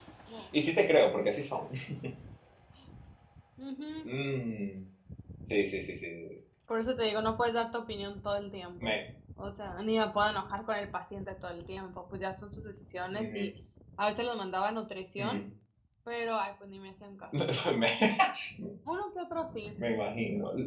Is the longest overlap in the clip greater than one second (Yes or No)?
No